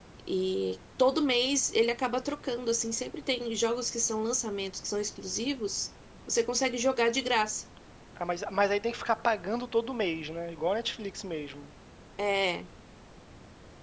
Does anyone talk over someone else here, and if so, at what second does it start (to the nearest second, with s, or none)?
none